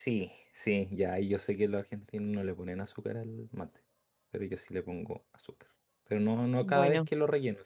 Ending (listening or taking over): listening